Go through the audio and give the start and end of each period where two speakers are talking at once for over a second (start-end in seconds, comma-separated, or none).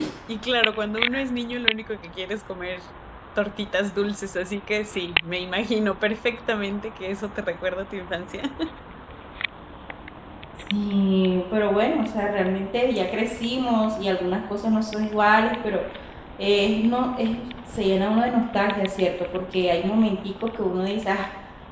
none